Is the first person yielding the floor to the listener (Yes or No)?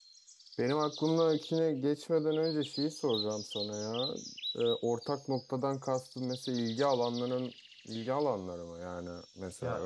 Yes